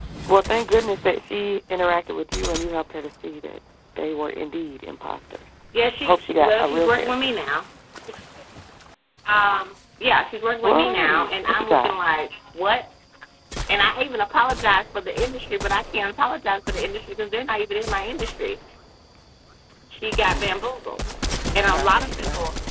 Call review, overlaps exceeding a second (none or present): present